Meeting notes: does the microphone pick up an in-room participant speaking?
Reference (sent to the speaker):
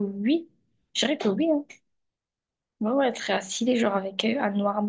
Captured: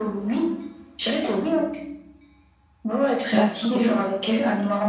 Yes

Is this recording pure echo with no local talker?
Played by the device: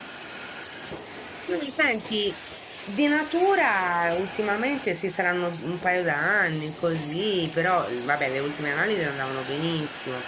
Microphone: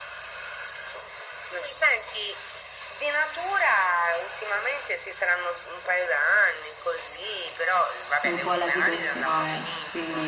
No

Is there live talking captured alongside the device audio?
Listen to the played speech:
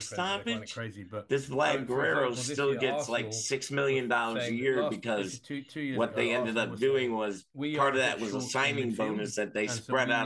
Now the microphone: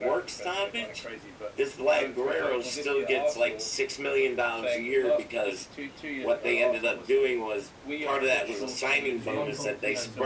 Yes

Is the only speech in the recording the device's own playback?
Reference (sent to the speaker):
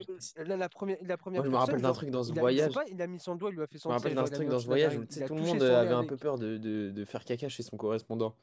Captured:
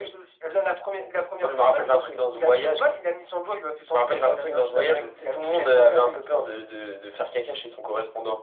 Yes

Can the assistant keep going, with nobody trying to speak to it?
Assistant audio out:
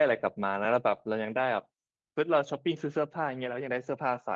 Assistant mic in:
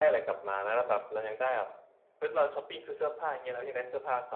Yes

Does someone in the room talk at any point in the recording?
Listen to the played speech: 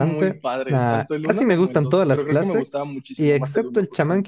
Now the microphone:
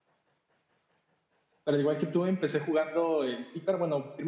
Yes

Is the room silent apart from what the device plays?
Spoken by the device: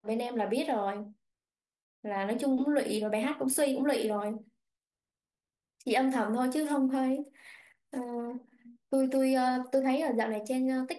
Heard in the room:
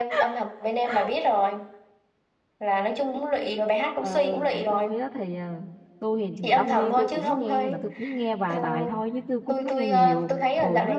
No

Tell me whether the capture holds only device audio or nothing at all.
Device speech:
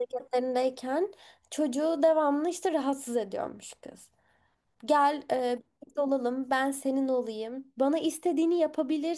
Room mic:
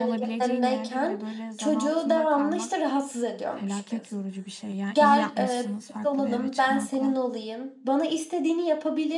No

